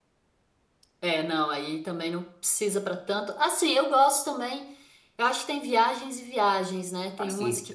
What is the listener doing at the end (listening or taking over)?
listening